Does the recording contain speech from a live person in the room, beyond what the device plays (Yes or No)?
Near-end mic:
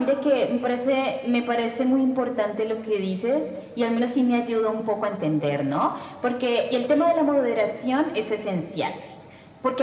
No